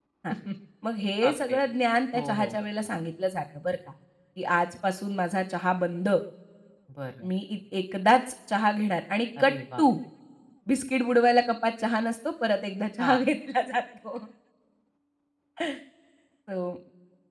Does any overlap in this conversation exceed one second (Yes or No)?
No